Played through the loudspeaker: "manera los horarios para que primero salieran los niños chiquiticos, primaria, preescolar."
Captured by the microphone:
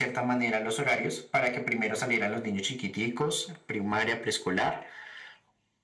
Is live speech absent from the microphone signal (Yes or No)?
Yes